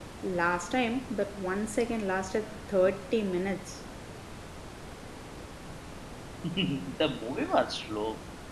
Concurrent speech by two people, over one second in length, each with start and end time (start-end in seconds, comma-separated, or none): none